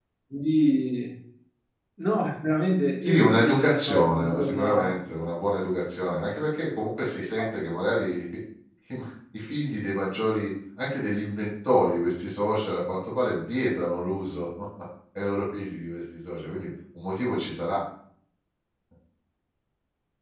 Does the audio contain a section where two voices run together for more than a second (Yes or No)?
Yes